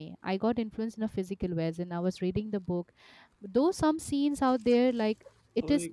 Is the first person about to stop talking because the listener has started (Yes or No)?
No